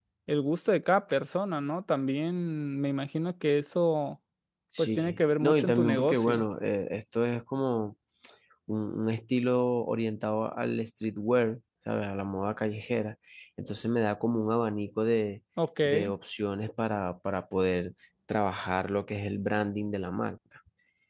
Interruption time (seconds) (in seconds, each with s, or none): 4.8 s